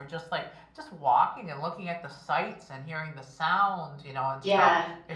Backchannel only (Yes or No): No